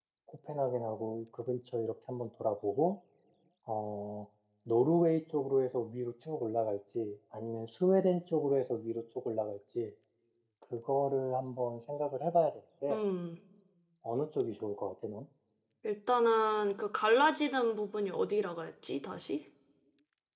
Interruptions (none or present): none